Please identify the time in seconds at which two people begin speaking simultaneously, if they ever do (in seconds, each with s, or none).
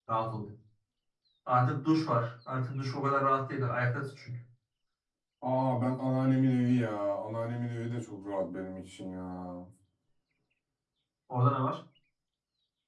none